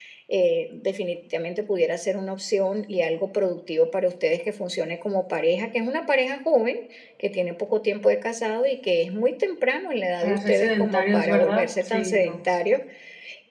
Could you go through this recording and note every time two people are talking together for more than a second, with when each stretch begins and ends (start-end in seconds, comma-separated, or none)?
10.2-12.4